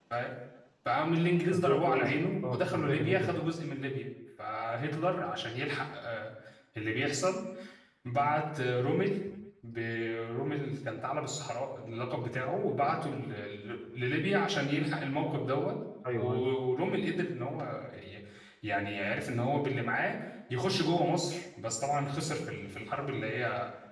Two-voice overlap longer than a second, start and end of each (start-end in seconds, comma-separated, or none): 1.5-3.3